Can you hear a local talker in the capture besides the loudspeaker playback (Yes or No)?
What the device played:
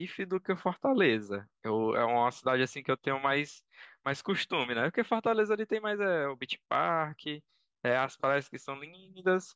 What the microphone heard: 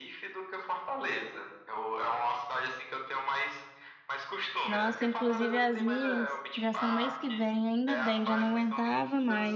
Yes